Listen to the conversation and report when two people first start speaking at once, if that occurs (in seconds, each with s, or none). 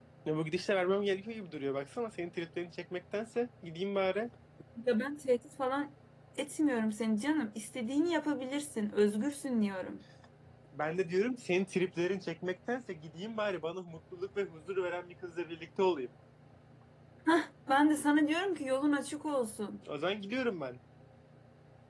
none